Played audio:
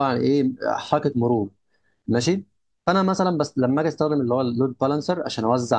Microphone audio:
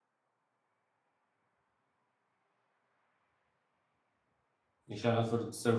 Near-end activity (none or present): present